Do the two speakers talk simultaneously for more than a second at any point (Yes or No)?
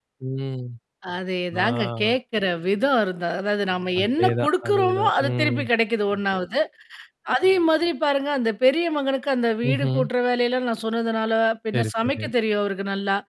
Yes